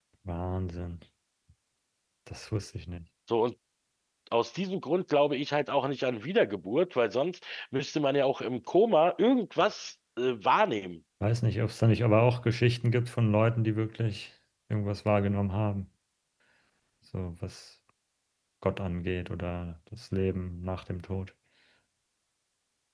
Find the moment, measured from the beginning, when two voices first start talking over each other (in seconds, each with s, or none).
none